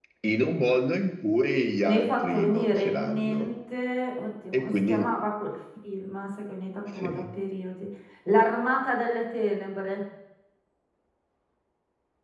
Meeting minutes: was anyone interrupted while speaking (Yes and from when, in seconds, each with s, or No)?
Yes, from 1.8 s